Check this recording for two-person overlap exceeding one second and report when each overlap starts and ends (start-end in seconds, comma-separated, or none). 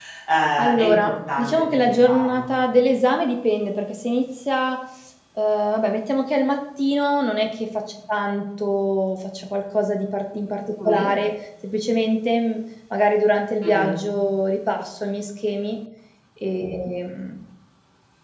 0.6-2.5